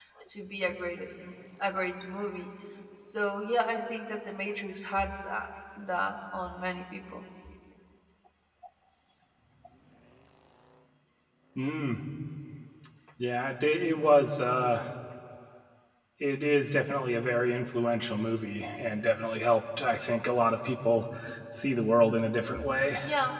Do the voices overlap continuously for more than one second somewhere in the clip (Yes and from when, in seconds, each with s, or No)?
No